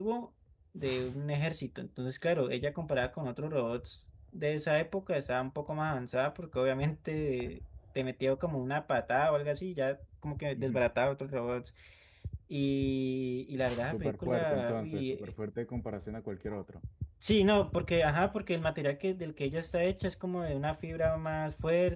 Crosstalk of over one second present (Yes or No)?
Yes